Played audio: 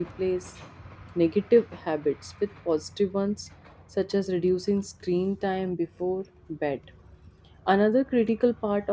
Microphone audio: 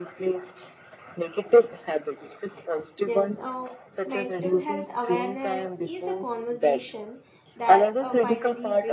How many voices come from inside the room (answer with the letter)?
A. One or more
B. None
A